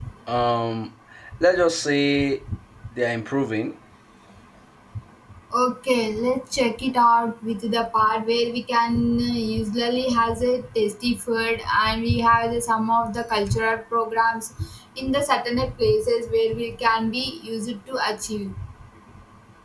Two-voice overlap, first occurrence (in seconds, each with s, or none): none